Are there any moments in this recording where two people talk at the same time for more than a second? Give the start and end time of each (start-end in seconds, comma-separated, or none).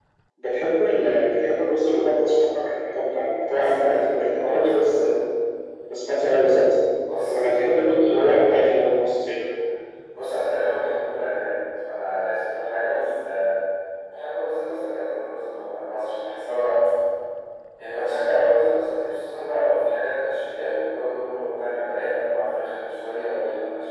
3.5-5.0